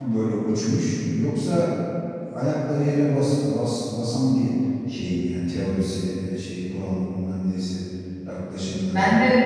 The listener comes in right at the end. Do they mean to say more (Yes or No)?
Yes